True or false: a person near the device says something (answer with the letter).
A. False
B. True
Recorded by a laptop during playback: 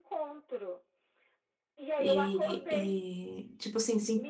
B